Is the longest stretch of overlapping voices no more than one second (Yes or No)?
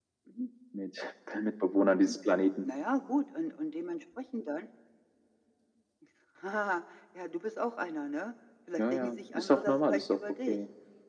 No